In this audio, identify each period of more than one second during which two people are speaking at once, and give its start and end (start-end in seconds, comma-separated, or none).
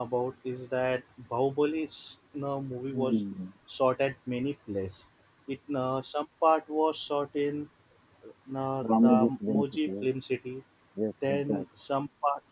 8.8-10.1